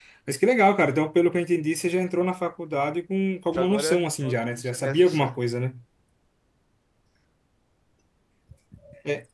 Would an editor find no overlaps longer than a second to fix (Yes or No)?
No